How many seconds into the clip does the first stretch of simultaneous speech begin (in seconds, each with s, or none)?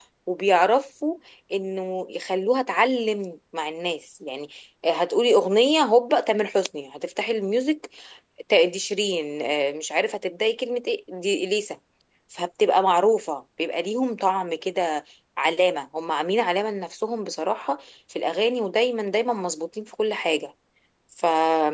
none